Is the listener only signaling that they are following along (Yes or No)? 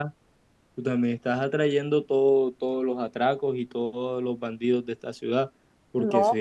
Yes